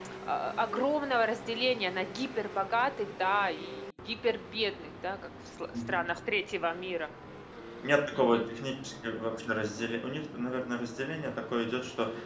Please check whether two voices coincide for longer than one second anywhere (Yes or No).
No